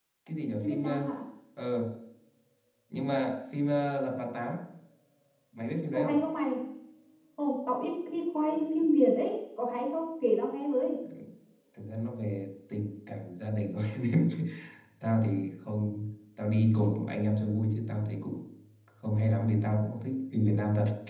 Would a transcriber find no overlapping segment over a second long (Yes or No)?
Yes